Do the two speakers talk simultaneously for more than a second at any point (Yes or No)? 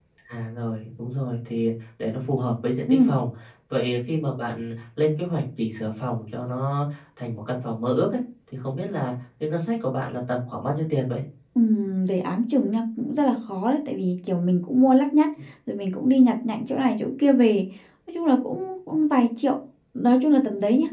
No